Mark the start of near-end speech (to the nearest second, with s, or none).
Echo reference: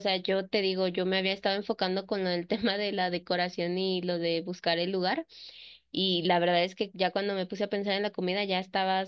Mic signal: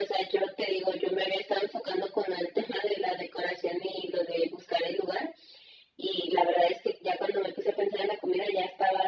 none